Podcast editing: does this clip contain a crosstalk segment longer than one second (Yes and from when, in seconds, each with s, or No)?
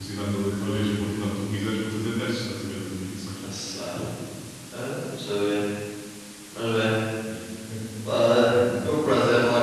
No